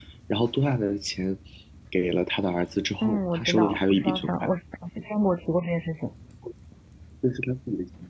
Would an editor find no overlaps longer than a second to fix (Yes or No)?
No